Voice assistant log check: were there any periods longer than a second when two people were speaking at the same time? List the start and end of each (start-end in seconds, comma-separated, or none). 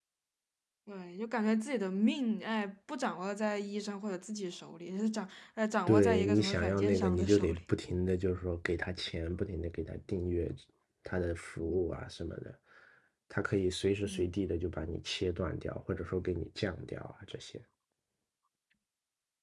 5.9-7.6